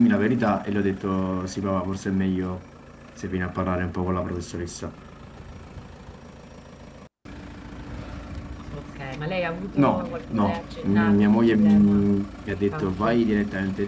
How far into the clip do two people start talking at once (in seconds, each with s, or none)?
9.8 s